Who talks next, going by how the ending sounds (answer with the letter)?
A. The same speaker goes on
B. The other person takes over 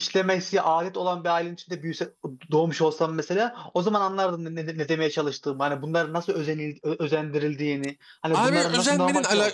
B